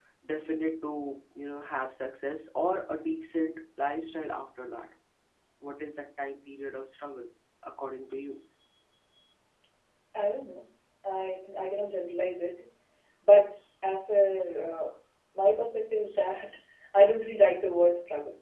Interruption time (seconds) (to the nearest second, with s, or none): none